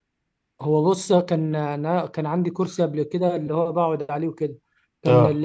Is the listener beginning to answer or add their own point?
No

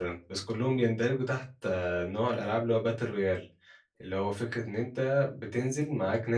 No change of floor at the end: Yes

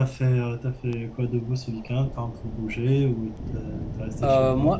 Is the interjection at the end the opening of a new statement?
Yes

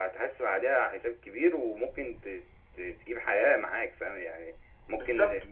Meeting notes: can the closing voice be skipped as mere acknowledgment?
Yes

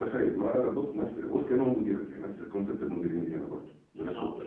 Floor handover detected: Yes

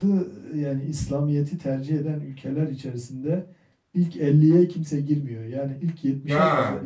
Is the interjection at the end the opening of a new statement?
No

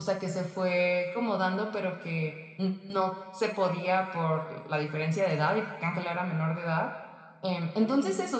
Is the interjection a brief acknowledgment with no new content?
Yes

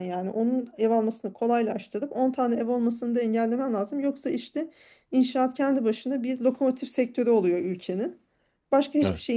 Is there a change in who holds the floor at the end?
No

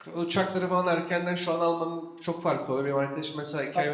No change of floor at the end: Yes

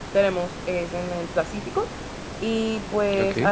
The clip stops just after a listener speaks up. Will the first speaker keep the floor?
Yes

